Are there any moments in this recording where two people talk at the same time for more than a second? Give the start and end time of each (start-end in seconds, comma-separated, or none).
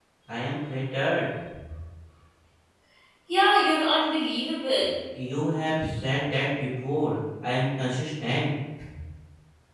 none